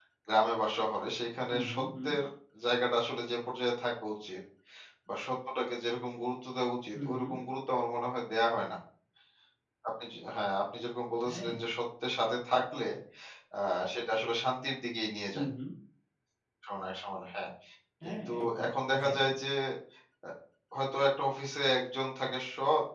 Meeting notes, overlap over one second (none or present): present